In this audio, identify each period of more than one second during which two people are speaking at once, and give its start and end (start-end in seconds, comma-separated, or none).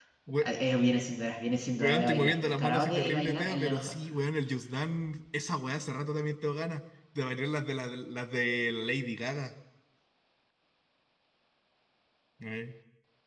1.8-3.9